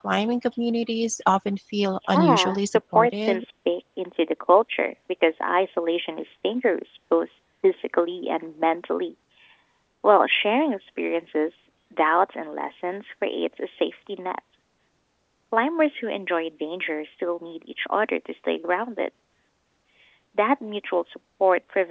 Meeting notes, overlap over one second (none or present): present